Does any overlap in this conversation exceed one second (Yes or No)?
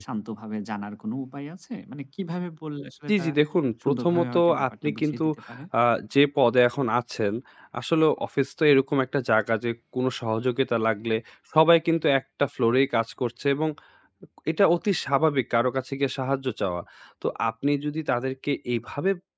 Yes